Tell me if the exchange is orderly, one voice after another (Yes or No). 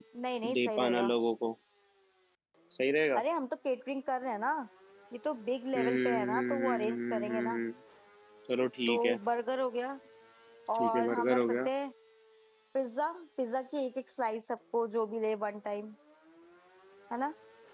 No